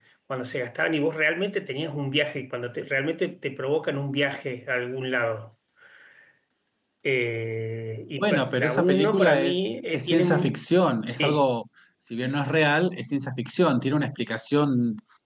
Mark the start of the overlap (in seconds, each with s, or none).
8.2 s